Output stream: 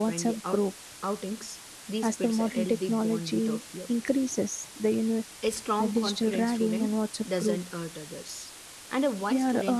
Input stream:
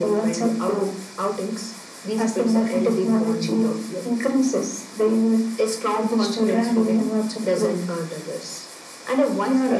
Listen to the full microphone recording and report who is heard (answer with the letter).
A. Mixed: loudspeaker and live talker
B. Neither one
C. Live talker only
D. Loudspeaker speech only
D